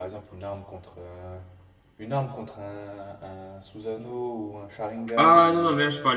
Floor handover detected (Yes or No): Yes